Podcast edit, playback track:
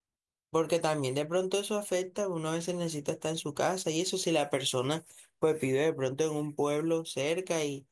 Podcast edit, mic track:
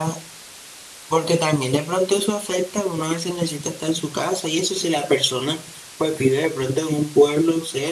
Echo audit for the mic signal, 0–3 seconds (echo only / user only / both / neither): echo only